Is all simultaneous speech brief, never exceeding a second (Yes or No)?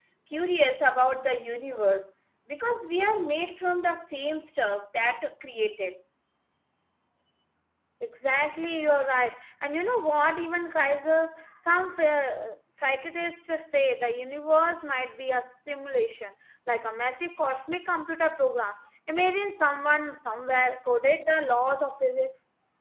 Yes